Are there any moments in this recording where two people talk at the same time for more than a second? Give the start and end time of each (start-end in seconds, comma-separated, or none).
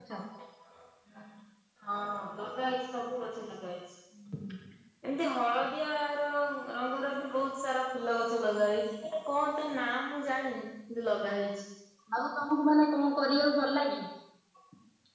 none